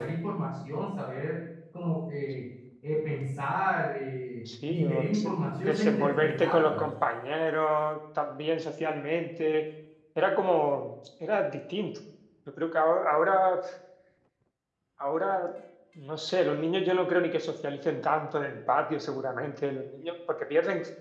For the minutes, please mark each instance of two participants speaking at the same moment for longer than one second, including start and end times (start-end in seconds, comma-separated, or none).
4.7-6.9